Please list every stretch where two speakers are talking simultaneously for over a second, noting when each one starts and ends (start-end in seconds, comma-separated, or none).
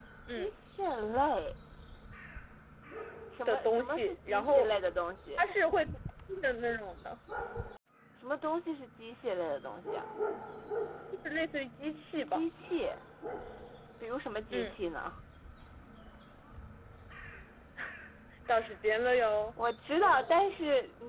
3.5-4.7